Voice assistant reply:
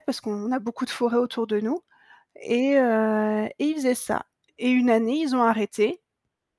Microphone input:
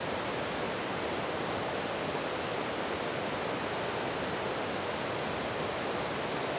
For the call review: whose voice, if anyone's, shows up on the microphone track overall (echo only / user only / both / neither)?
neither